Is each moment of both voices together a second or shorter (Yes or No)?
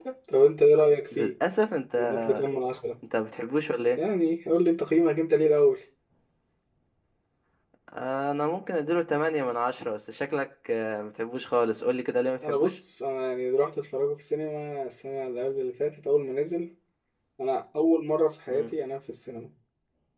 Yes